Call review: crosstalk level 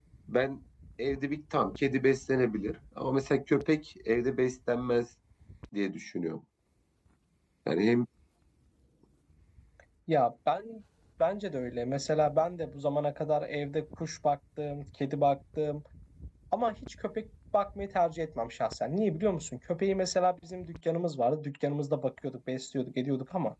none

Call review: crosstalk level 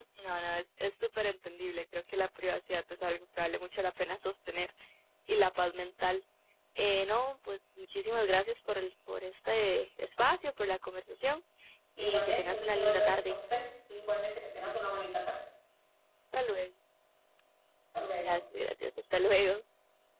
present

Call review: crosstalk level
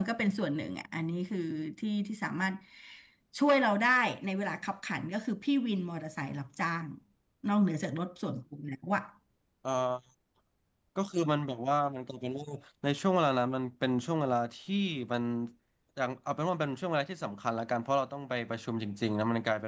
none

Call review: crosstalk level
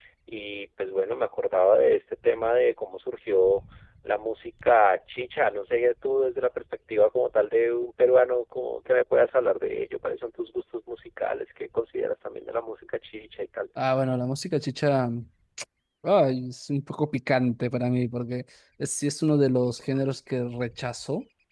none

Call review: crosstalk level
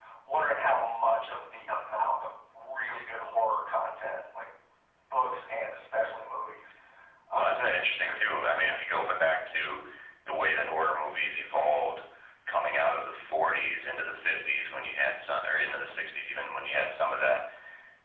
present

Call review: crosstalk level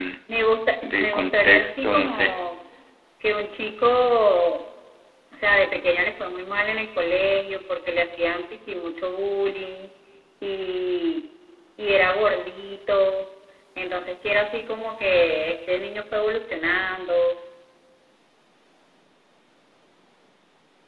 present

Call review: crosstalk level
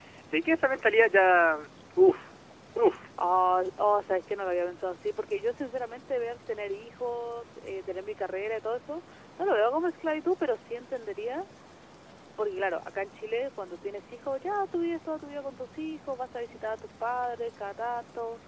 none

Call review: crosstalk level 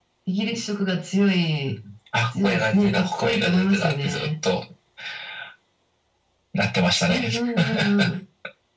present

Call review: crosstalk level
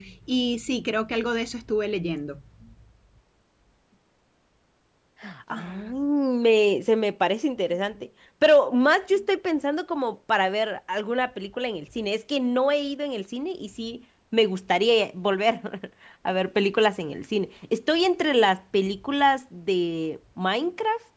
none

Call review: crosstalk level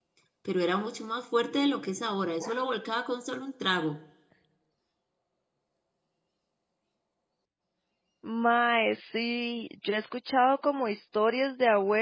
none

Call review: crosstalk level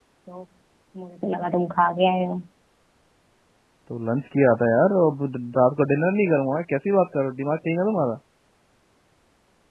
none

